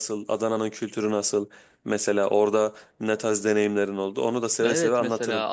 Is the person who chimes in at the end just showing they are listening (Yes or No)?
No